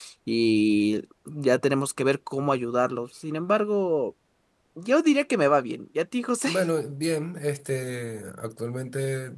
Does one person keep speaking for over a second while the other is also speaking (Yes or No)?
No